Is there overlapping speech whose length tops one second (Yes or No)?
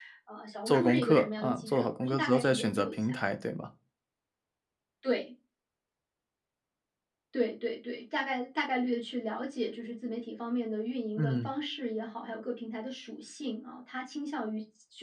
Yes